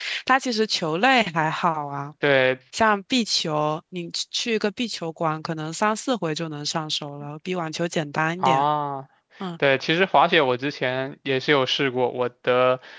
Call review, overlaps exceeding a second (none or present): none